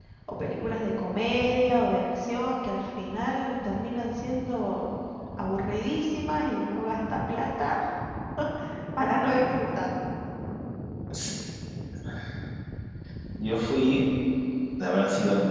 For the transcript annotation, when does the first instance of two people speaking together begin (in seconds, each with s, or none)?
none